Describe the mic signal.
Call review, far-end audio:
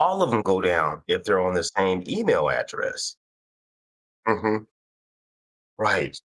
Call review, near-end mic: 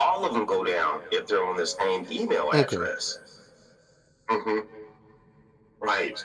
both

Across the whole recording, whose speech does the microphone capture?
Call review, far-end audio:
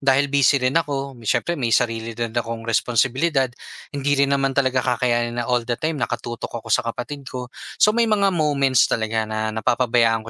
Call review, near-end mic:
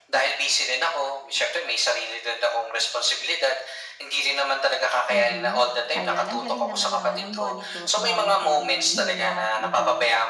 both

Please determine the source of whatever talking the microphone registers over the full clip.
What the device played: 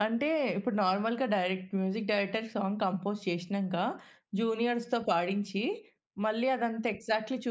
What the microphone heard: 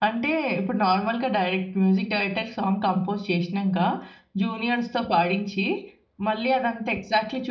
echo only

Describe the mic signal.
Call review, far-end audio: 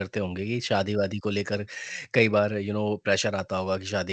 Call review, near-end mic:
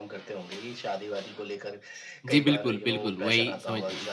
both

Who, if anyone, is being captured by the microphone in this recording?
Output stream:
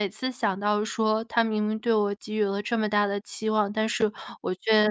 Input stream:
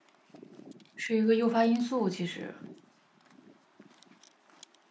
user only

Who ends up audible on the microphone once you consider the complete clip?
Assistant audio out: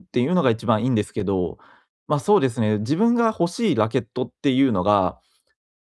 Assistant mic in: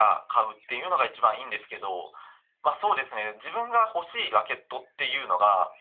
echo only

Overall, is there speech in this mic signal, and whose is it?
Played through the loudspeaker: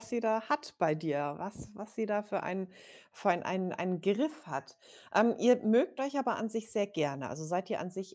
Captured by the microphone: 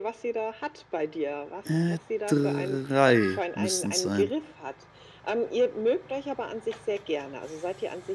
both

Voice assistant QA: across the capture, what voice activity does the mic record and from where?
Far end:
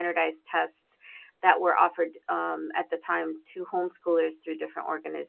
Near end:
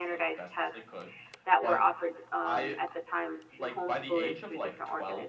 both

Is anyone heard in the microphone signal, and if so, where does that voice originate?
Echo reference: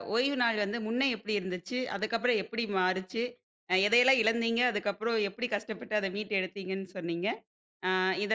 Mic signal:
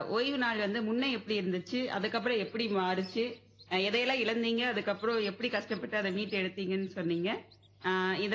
echo only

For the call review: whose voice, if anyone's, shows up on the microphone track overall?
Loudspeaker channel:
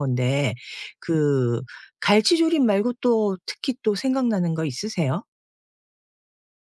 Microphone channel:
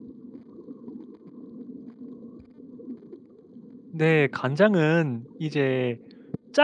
user only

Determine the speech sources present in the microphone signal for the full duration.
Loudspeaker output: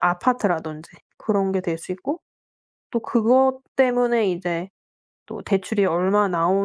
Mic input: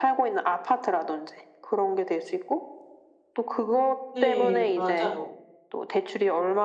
both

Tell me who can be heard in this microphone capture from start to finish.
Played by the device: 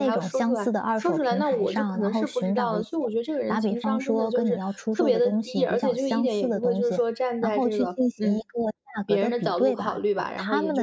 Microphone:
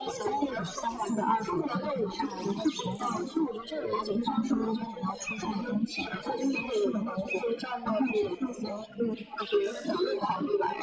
echo only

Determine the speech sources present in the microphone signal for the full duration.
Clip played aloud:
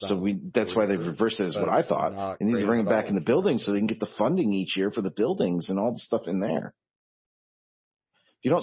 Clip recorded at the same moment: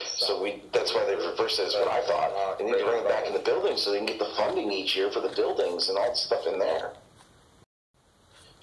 echo only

